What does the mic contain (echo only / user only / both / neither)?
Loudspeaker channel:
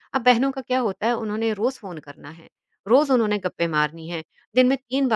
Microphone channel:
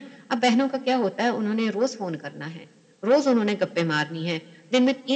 echo only